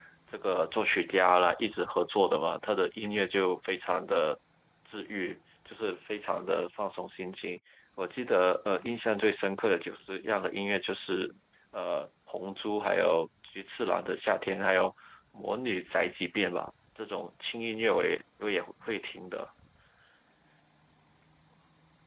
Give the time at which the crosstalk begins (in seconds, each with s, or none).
none